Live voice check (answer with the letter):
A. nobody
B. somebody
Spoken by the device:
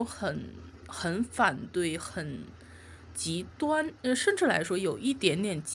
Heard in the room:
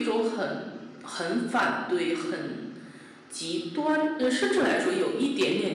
A